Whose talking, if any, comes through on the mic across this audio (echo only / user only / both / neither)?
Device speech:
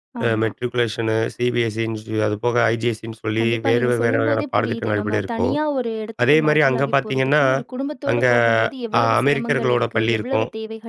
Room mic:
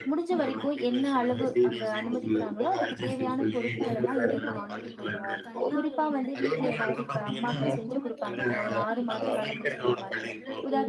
both